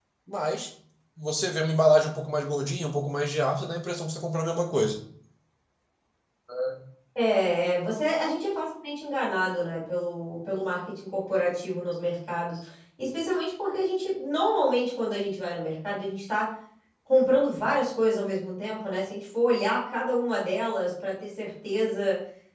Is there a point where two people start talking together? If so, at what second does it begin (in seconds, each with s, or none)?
none